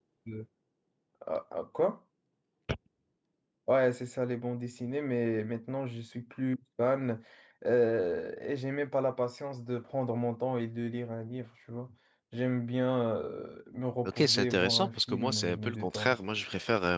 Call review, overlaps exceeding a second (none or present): present